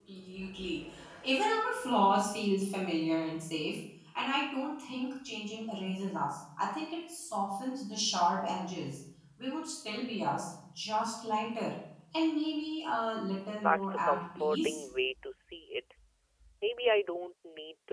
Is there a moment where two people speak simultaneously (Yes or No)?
Yes